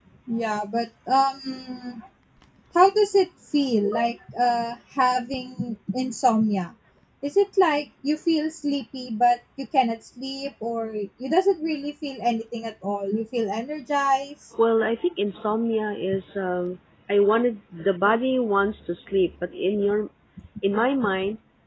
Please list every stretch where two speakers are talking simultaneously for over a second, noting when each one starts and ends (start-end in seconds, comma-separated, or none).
none